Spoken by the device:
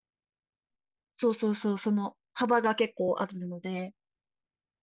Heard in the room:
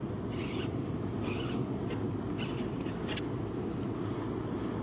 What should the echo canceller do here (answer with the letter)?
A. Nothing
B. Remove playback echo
A